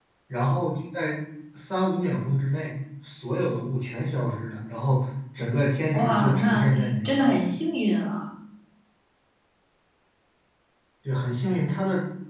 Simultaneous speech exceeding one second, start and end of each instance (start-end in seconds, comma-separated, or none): 5.9-7.4